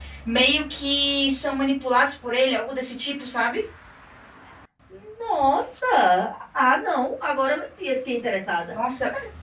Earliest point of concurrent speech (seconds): none

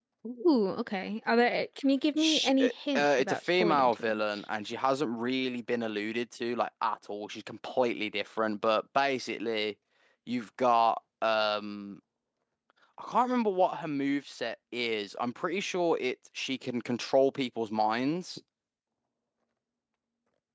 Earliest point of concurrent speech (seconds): 2.2 s

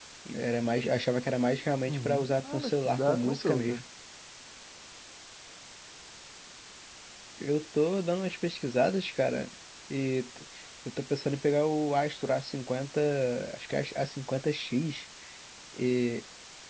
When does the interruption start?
1.8 s

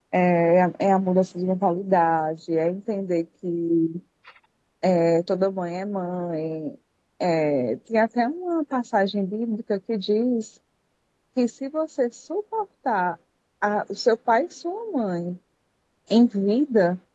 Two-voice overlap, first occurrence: none

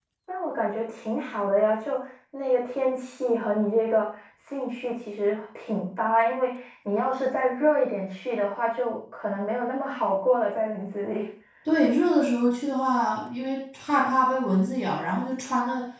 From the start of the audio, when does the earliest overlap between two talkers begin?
none

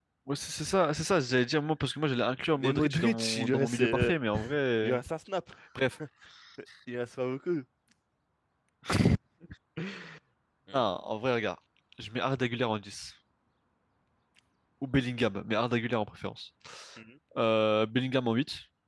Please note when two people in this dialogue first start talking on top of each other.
2.6 s

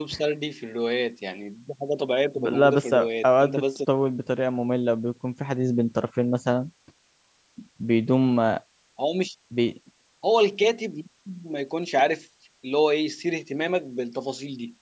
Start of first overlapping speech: 2.4 s

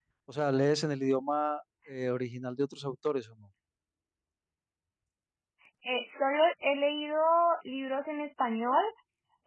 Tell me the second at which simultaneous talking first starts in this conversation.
none

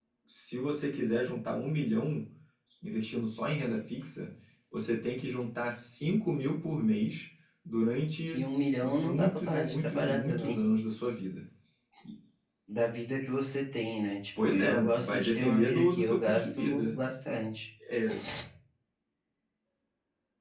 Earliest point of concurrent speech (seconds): 8.8 s

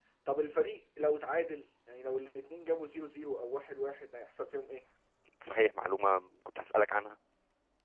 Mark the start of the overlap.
none

